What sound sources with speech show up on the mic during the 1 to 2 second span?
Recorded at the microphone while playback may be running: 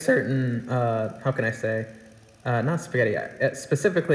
echo only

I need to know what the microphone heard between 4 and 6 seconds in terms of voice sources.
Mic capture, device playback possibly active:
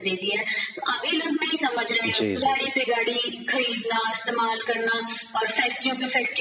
echo only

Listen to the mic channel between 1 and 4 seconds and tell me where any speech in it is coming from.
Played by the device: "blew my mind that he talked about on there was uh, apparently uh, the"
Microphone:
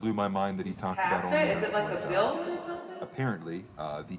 both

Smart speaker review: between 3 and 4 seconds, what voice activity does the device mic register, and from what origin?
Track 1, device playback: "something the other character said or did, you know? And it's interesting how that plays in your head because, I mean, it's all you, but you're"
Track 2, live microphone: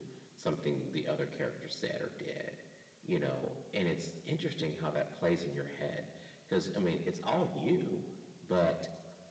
echo only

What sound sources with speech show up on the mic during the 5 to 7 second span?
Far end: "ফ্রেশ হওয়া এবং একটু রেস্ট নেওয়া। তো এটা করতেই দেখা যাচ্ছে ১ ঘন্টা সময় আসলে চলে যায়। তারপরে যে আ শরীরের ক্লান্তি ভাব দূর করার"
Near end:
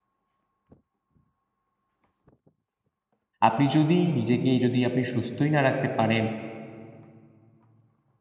user only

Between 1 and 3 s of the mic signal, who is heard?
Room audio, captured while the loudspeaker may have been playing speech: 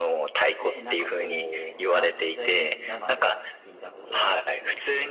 both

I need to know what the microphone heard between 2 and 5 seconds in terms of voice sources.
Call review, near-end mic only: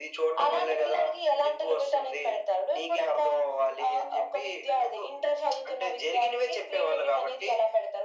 echo only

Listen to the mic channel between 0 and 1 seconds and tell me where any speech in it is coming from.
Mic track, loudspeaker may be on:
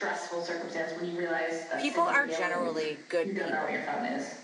echo only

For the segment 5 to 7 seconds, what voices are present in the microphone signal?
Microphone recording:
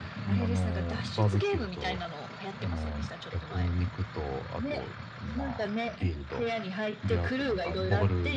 both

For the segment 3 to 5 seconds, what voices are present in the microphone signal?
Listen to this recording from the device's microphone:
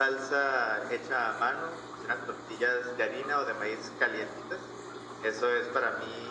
echo only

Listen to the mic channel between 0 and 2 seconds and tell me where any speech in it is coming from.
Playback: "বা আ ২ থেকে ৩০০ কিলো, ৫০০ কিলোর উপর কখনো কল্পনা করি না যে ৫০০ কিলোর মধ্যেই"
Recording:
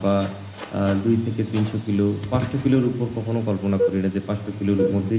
echo only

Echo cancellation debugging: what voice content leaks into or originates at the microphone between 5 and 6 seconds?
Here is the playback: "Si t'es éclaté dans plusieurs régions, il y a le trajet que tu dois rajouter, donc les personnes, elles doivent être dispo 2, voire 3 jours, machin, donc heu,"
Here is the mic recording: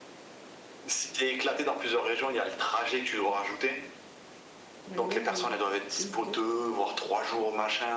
both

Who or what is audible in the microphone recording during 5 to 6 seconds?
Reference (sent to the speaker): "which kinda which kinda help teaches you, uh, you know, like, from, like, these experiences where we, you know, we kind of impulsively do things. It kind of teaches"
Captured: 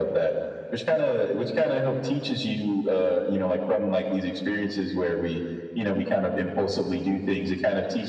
echo only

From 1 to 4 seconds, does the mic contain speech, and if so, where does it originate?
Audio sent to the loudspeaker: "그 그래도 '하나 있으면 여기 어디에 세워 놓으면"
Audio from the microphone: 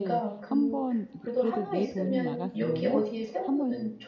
both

